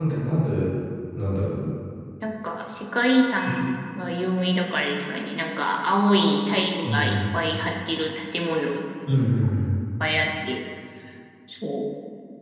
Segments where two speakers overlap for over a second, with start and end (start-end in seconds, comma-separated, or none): none